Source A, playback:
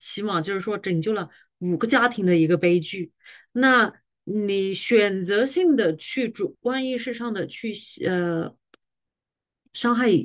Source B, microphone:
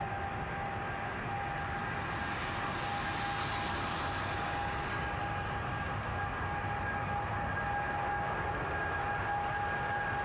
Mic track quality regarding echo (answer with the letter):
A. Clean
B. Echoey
A